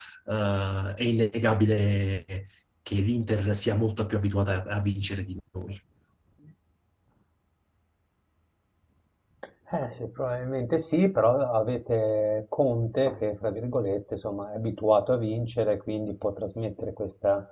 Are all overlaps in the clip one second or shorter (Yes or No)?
Yes